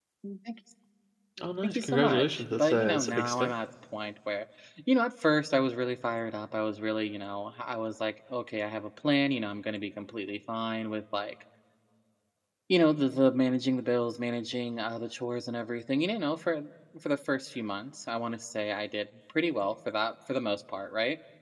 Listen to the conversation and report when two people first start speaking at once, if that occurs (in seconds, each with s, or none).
1.6 s